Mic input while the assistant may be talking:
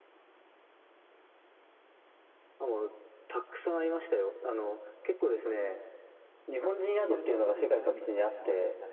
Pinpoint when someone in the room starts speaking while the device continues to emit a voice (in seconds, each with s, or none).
7.0 s